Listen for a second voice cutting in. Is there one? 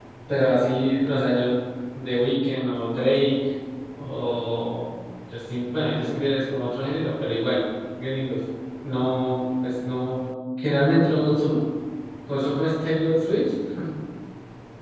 No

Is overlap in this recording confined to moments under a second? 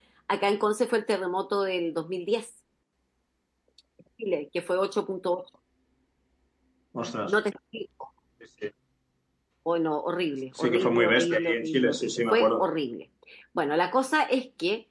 No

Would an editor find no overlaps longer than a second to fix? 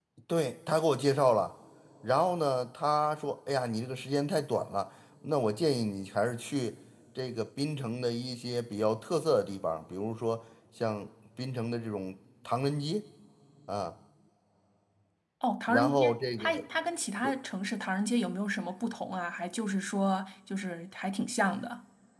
Yes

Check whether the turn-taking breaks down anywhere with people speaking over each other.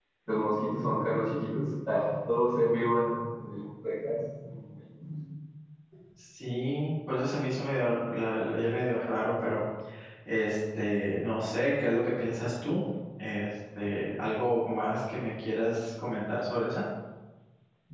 No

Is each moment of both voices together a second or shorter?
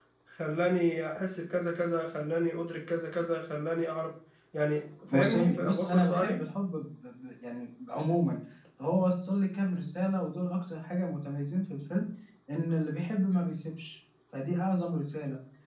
No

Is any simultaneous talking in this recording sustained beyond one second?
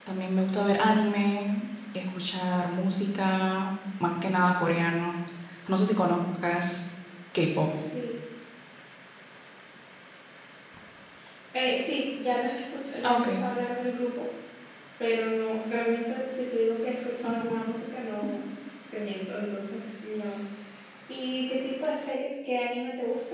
No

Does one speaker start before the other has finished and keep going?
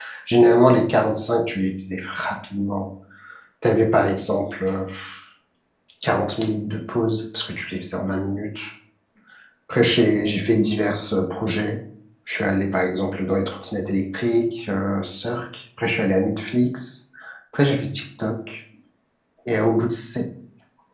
No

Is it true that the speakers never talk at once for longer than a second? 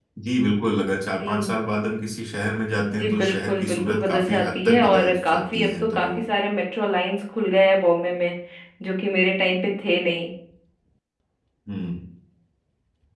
No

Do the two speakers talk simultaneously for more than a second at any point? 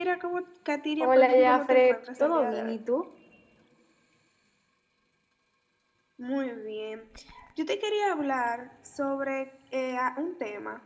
Yes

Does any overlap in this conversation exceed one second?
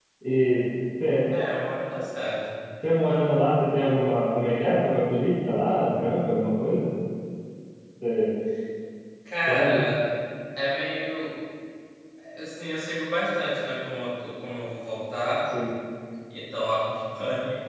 No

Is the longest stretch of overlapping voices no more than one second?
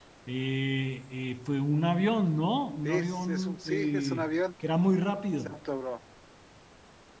No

